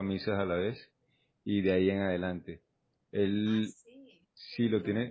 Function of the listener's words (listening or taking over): listening